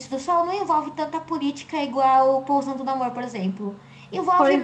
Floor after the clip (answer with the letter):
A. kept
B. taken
A